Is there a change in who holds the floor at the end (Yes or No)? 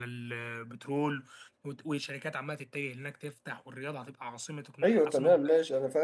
Yes